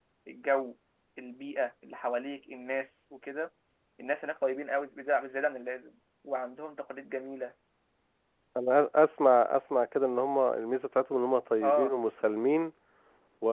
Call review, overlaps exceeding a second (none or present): none